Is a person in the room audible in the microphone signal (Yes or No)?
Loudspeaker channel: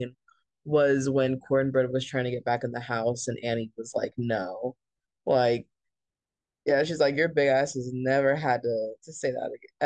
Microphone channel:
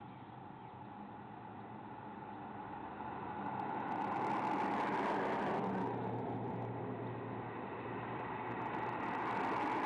No